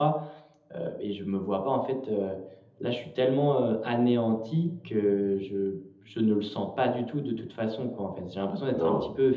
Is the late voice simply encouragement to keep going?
Yes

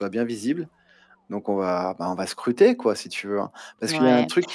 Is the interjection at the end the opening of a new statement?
Yes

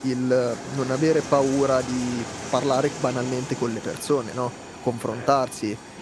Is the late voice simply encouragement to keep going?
Yes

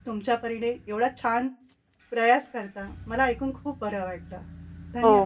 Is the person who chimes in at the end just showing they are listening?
No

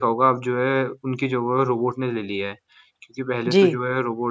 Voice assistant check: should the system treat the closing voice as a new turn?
No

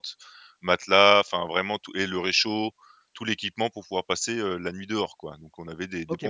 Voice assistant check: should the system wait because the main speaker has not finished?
No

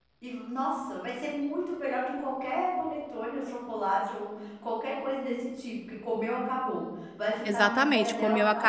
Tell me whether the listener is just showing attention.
No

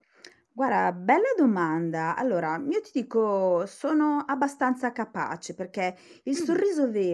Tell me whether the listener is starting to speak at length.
No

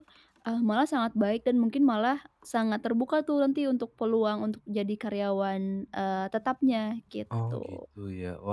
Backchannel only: No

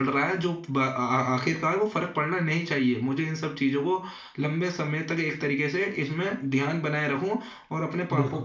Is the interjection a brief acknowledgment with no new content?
Yes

